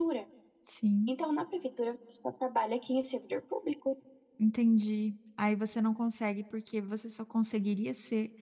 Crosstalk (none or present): none